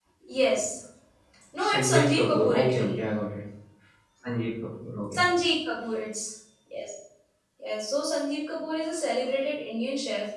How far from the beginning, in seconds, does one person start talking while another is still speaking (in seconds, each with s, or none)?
1.6 s